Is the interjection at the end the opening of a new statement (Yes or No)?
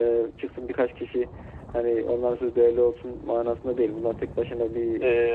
Yes